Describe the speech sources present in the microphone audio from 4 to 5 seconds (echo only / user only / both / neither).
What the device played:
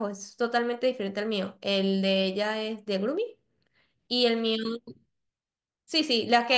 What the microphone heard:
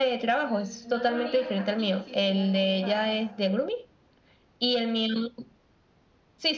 echo only